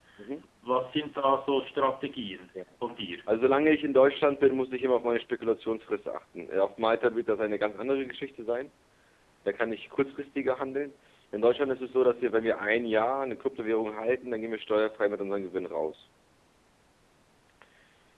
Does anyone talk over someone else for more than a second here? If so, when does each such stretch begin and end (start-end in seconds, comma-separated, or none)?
none